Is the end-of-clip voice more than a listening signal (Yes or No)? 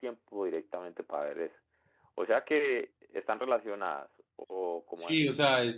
Yes